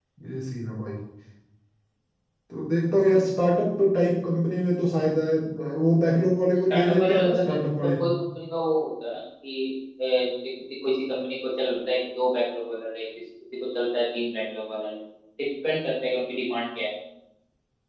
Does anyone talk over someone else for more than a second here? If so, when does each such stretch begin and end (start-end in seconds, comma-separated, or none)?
6.7-7.9